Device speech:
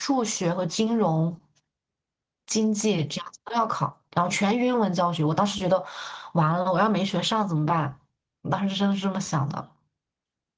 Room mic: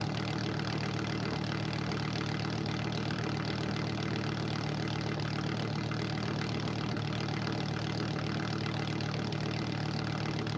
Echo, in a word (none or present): none